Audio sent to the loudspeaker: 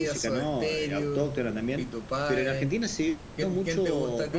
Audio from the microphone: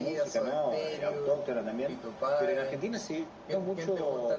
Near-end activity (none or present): none